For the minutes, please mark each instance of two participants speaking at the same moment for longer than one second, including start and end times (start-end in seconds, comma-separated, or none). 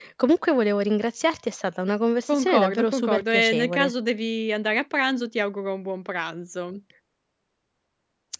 2.3-3.9